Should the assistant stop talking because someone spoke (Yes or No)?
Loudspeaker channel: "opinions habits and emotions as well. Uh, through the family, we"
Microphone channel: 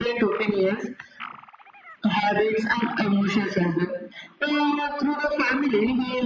No